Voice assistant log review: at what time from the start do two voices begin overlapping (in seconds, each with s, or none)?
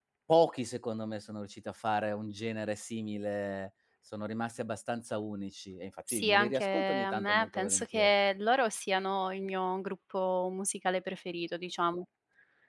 6.1 s